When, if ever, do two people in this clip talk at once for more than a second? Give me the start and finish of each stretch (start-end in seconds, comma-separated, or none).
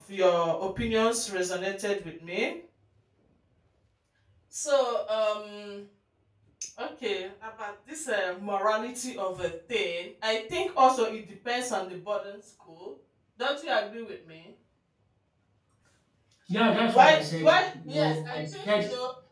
16.9-18.6